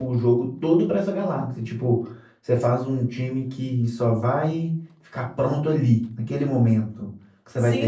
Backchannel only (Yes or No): No